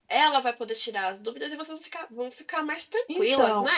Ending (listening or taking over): taking over